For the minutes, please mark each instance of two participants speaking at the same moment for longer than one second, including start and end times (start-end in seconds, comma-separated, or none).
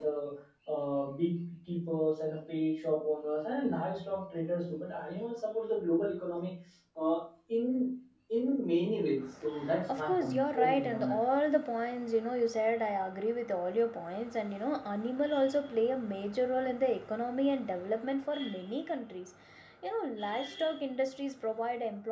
9.9-11.2